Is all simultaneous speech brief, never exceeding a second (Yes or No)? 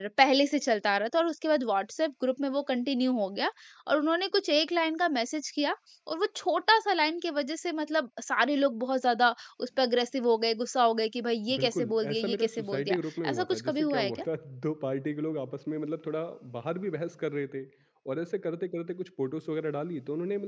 No